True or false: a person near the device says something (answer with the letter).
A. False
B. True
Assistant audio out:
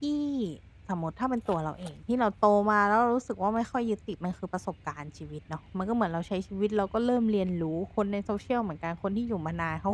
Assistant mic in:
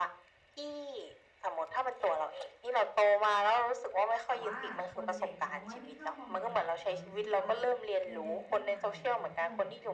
B